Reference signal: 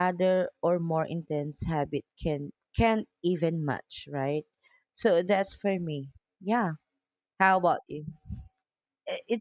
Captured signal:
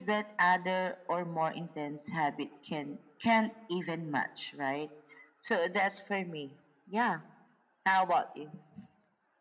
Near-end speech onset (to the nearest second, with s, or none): none